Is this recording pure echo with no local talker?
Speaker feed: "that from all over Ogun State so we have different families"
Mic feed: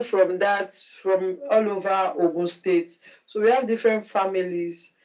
Yes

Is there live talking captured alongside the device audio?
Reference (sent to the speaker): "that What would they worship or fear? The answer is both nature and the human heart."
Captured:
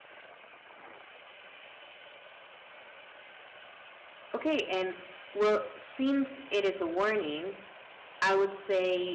Yes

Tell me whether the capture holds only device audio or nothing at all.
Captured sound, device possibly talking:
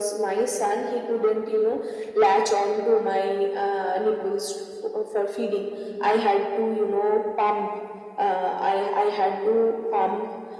Yes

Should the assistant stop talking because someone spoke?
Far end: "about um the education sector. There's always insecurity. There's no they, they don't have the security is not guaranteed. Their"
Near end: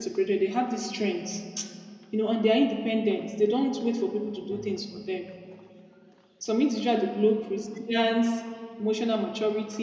Yes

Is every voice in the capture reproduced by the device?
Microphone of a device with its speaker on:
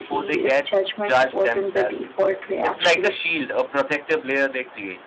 No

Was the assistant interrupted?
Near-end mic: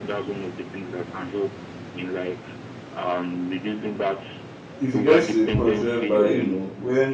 Yes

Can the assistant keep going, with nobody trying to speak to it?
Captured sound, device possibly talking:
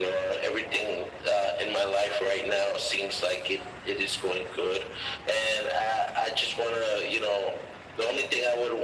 Yes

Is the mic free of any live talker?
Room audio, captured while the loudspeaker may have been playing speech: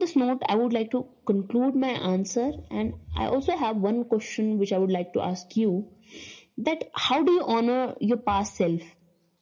Yes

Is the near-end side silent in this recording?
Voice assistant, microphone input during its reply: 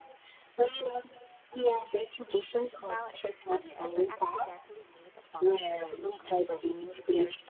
No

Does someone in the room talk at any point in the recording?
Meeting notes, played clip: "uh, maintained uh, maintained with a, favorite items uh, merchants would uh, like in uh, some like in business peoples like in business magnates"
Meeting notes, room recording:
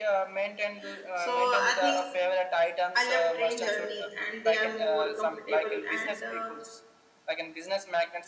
Yes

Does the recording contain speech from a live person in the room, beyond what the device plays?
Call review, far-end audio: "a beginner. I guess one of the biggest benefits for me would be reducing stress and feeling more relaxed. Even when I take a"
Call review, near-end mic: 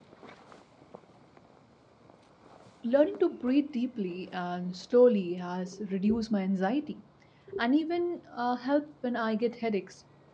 Yes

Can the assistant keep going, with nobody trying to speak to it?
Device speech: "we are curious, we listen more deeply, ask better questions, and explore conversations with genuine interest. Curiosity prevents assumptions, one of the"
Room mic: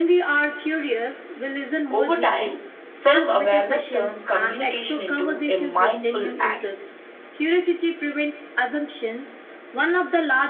No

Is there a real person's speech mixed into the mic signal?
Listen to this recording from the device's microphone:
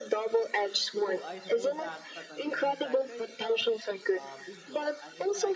Yes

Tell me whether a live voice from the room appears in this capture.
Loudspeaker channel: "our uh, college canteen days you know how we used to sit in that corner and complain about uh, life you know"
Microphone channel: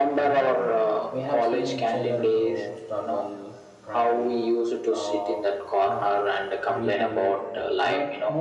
Yes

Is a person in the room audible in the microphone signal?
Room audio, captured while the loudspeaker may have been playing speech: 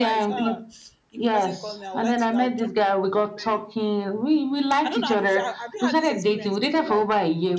Yes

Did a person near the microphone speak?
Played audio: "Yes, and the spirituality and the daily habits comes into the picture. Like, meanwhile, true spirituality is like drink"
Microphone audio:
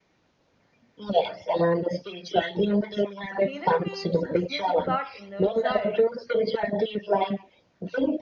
Yes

